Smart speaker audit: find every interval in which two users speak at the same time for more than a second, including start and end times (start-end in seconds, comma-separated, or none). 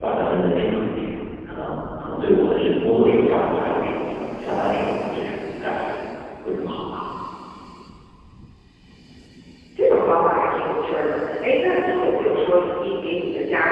none